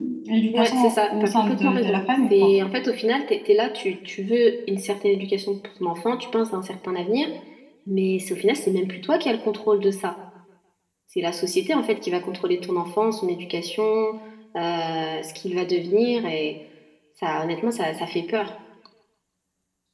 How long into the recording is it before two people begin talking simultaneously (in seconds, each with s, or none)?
0.5 s